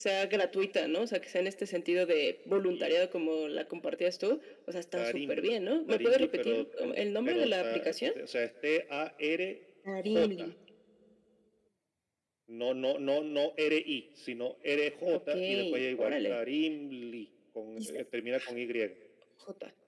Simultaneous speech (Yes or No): Yes